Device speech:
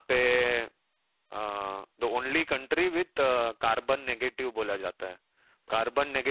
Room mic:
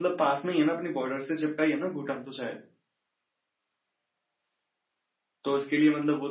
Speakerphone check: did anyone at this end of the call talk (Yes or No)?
Yes